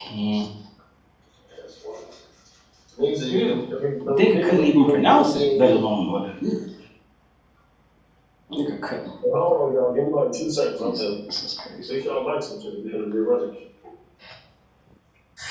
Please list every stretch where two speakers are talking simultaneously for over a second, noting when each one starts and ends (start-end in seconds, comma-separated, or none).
4.2-5.8